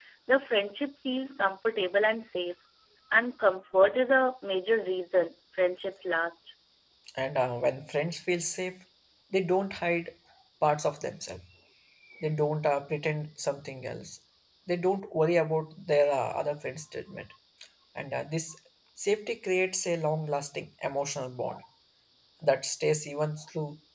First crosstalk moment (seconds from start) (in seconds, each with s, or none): none